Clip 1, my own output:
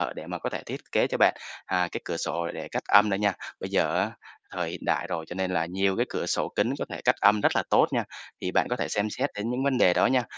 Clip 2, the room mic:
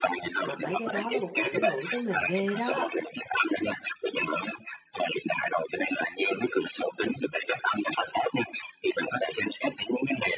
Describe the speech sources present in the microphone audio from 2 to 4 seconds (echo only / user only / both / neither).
both